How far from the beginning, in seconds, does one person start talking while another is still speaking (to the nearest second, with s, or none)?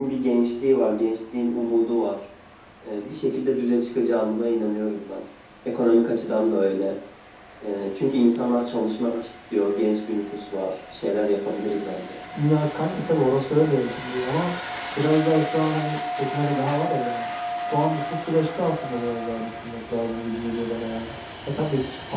none